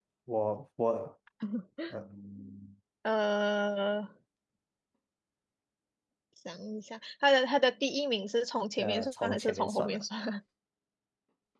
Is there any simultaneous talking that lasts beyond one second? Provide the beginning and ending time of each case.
8.8-10.0

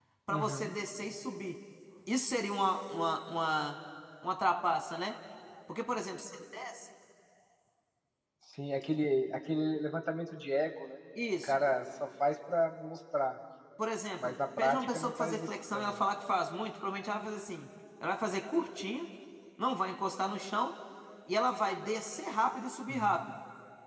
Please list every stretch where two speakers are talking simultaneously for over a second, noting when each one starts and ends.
14.2-16.0

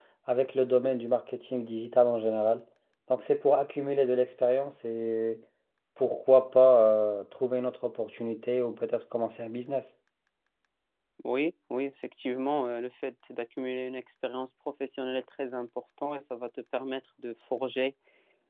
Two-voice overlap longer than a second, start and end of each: none

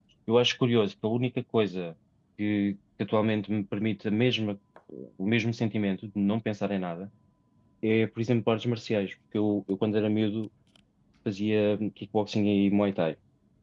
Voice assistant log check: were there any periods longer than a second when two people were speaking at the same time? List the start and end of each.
none

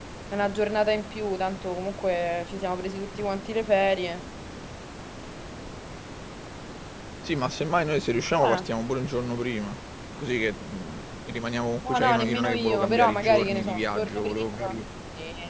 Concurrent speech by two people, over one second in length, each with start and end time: 11.8-14.8

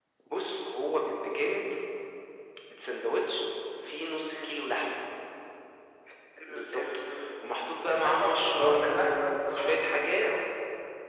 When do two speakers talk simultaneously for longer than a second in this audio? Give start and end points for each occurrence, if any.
7.9-10.3

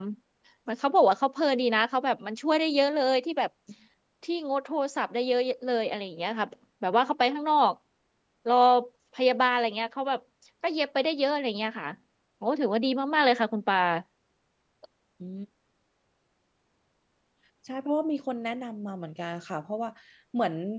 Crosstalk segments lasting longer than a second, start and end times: none

